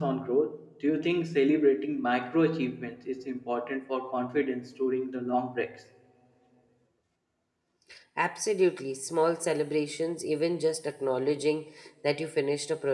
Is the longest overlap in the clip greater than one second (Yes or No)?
No